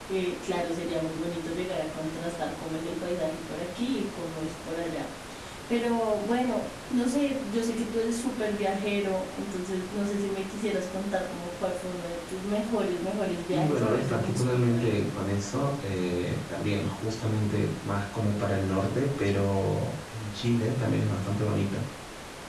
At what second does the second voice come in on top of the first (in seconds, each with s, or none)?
13.5 s